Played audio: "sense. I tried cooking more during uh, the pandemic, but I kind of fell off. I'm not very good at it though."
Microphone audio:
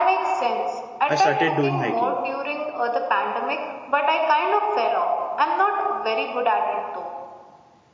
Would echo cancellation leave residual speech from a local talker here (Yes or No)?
Yes